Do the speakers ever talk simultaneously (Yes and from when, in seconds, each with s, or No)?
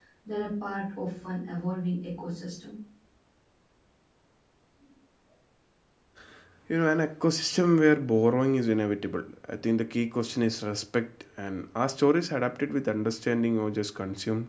No